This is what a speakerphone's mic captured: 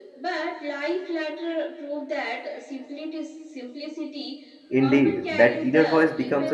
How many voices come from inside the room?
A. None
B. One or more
B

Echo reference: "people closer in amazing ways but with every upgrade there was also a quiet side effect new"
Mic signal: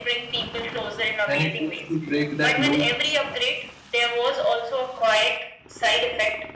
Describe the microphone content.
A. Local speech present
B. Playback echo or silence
A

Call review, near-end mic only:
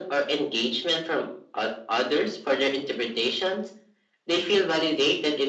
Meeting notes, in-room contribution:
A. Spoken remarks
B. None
B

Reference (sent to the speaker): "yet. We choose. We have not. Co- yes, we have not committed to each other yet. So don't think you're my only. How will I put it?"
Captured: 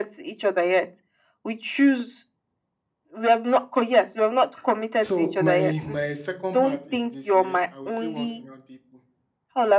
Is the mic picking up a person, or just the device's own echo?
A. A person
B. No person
A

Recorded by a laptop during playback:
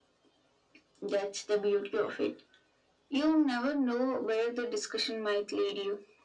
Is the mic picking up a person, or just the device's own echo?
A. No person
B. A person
A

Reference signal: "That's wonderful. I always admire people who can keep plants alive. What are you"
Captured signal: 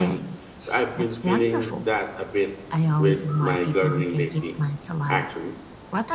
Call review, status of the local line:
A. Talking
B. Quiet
A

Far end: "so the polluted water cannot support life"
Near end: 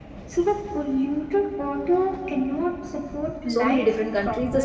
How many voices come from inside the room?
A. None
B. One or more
B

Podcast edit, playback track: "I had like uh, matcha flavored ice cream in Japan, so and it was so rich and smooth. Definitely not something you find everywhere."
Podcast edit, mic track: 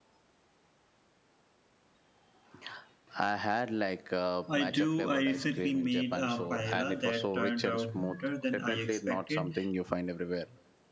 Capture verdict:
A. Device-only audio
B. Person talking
B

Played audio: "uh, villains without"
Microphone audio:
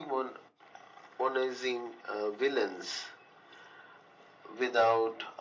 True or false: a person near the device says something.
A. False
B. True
A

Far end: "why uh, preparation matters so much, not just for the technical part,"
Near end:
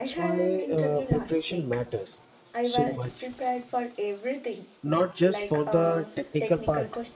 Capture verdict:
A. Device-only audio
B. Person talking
B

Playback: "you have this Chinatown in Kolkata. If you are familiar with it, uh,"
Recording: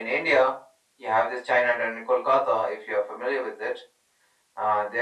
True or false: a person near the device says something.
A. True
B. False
B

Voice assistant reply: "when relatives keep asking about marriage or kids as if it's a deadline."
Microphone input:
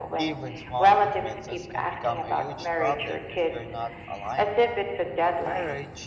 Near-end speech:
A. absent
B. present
B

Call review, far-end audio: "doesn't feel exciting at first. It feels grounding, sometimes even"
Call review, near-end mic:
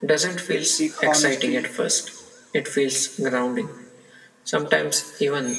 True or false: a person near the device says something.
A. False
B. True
B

